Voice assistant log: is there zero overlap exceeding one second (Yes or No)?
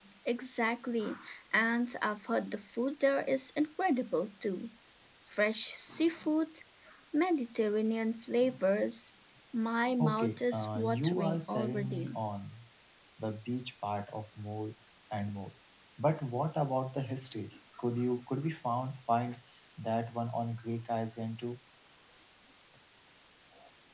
No